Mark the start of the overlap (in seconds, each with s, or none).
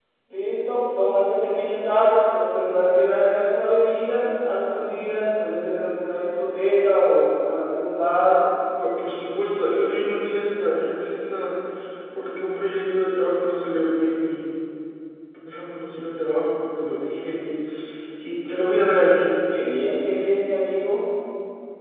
none